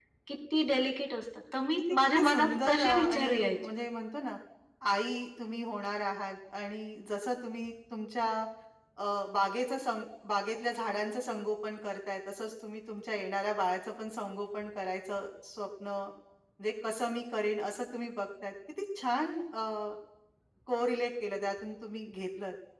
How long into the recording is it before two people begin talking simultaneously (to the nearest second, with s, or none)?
2 s